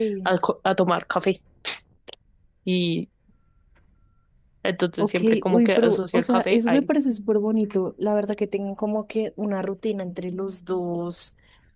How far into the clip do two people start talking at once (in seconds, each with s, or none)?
5.0 s